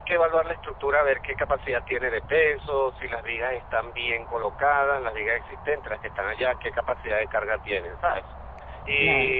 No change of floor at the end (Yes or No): Yes